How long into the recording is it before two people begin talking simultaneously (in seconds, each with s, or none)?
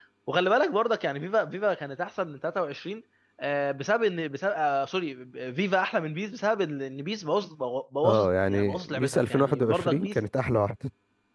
8.0 s